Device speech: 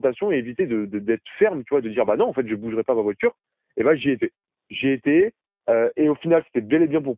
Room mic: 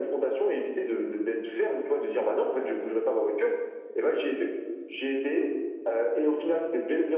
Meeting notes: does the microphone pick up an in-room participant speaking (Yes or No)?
No